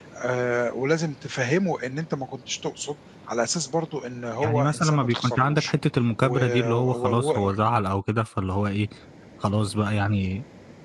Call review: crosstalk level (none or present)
present